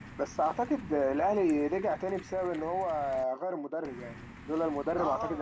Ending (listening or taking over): taking over